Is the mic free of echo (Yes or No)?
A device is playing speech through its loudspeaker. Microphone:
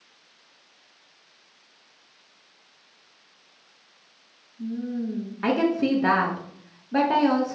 Yes